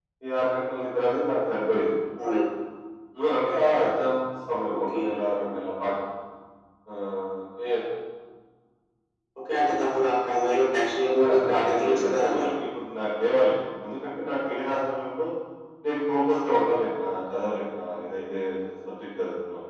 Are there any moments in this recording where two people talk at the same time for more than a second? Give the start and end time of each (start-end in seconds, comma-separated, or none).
11.2-12.5